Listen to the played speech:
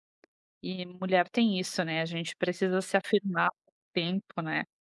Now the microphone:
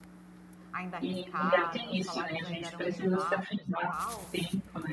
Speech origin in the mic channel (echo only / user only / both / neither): both